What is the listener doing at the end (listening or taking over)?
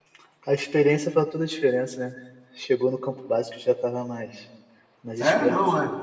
taking over